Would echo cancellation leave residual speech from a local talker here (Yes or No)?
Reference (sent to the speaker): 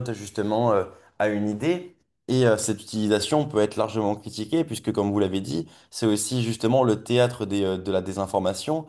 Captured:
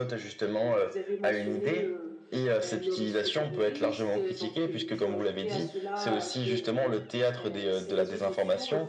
Yes